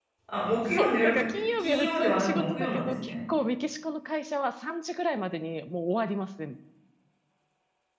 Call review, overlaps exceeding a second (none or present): present